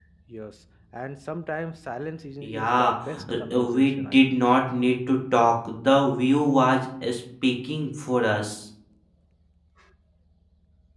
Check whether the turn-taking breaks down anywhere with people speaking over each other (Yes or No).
Yes